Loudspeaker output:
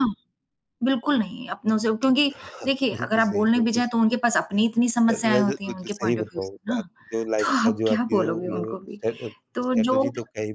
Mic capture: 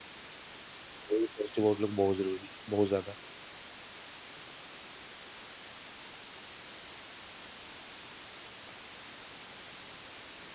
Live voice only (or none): तो पॉज़िटिव आउटलुक बहुत ज़रूरी है, बहुत ज़्यादा।